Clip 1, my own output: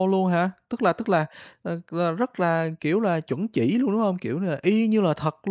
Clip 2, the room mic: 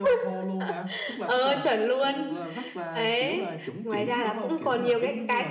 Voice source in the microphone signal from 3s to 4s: both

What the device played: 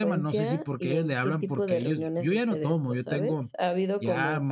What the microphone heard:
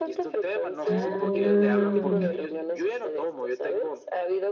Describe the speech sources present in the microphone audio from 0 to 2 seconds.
both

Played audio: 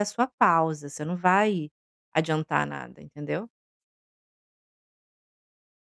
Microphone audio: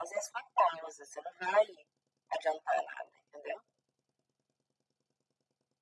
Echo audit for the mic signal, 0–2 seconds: echo only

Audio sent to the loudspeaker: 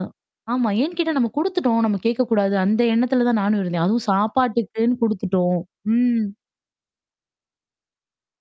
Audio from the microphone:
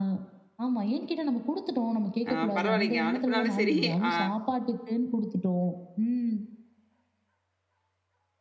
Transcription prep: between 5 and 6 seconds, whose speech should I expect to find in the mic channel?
echo only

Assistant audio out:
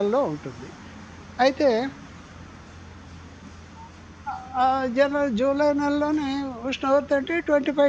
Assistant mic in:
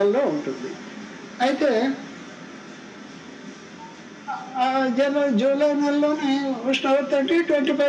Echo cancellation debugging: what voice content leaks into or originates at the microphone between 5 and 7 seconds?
echo only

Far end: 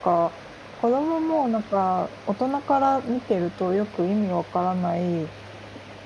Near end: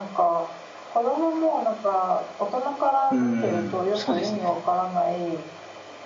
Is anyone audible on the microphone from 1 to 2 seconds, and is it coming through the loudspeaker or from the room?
echo only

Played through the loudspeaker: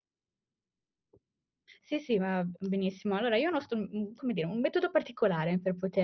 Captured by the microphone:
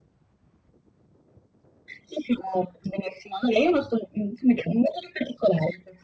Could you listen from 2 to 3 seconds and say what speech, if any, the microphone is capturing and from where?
echo only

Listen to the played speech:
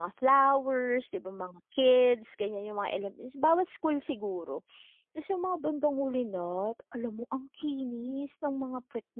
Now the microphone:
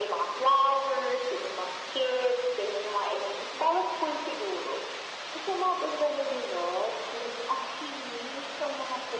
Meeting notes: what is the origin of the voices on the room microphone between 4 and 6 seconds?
echo only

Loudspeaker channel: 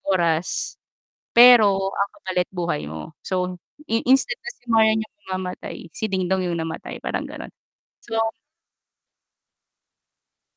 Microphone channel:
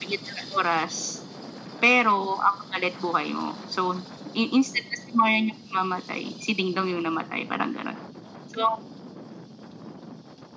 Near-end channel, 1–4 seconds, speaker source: echo only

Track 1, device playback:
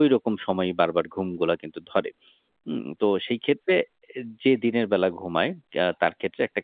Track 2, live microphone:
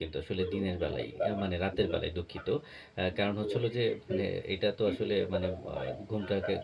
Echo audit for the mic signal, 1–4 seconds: both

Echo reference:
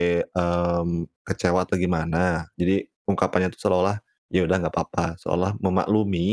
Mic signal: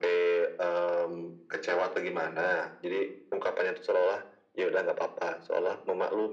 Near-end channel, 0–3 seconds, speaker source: echo only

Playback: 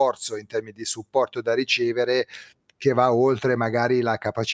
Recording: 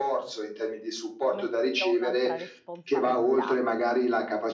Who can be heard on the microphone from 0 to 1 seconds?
echo only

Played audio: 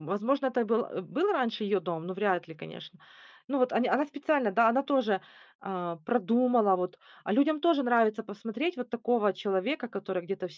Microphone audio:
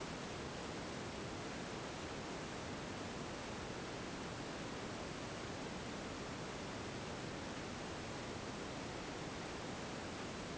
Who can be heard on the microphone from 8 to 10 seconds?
neither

